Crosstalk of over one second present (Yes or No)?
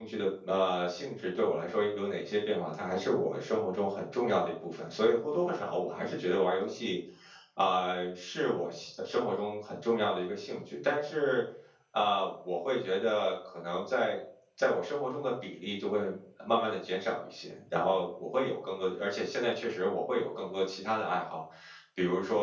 No